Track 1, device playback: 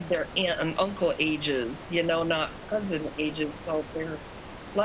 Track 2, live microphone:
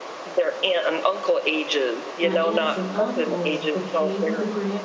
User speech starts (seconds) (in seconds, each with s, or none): 2.2 s